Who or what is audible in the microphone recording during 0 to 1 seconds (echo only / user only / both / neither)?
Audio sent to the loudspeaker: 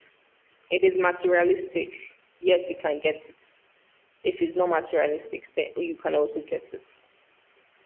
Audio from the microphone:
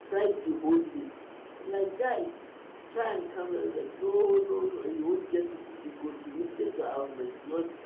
user only